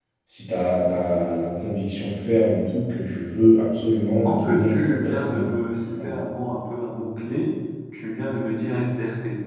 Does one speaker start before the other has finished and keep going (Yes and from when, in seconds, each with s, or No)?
Yes, from 4.2 s